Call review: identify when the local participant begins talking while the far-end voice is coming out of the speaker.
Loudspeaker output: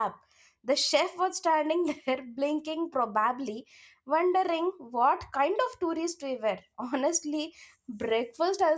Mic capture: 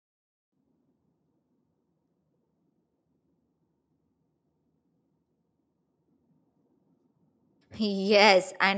7.8 s

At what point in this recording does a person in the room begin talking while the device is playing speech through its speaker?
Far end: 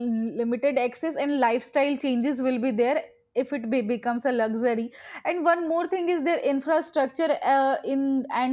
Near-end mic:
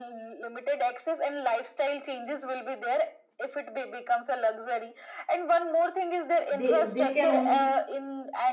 6.5 s

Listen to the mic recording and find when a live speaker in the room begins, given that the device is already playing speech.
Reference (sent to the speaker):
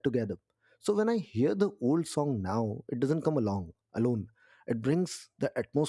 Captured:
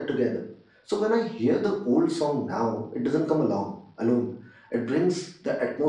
none

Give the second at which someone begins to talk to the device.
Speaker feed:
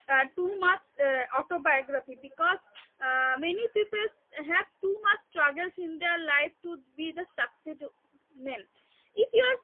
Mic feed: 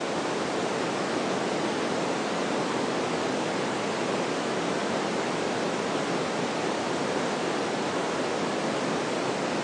none

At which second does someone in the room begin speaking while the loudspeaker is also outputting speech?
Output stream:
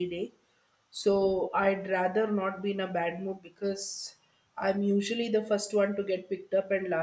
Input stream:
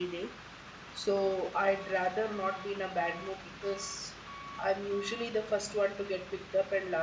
none

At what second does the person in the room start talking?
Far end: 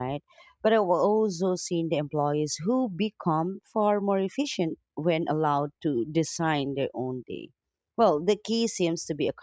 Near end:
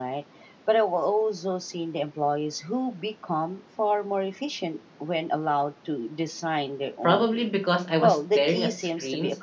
7.0 s

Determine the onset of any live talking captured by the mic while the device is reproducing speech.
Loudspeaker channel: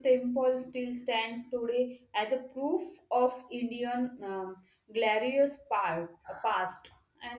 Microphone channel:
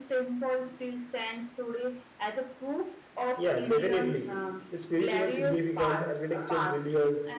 3.4 s

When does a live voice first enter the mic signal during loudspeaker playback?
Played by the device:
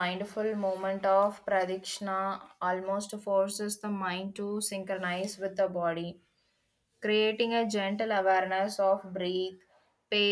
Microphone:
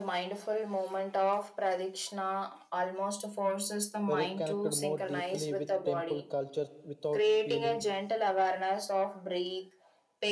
4.1 s

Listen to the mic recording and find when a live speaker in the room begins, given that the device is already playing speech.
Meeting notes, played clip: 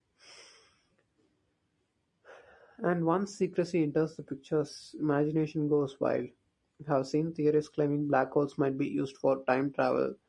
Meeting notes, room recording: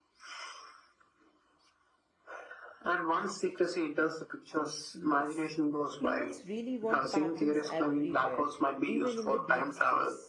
4.9 s

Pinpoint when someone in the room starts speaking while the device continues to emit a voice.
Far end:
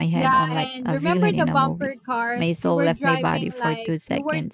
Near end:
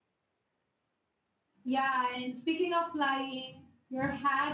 1.6 s

